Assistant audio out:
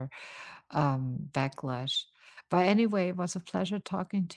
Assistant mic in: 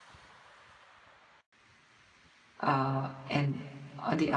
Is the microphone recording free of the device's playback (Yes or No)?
Yes